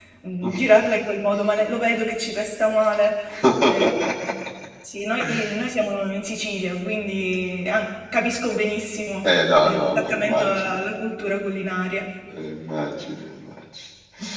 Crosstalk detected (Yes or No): Yes